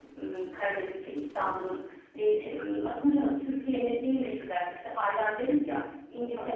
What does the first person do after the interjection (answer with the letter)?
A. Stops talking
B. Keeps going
B